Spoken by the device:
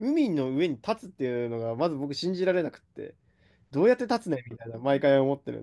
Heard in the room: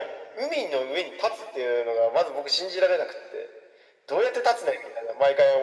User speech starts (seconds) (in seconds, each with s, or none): none